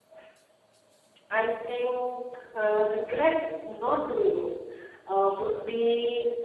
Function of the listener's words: listening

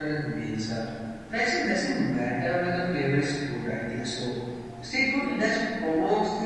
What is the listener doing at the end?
listening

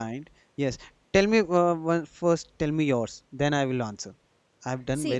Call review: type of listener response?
taking over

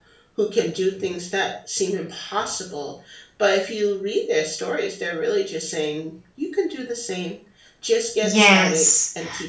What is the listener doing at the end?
taking over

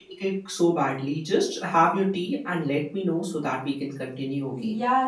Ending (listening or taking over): taking over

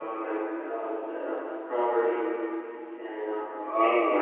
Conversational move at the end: taking over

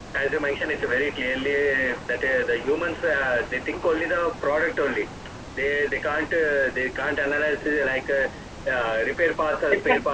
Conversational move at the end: taking over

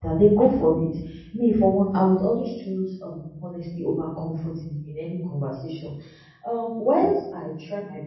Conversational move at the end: listening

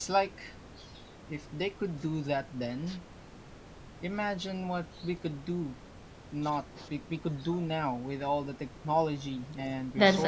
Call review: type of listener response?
taking over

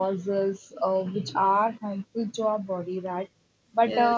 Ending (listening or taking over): listening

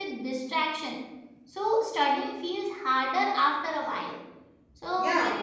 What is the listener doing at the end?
listening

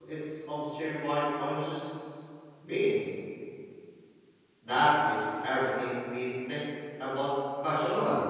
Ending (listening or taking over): taking over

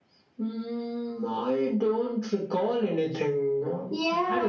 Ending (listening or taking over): taking over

